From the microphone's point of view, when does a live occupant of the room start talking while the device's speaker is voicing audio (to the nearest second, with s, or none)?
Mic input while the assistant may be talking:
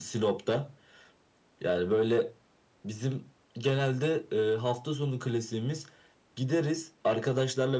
none